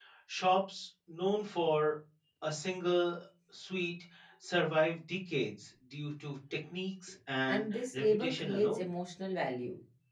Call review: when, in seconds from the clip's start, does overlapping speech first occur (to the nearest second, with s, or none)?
7 s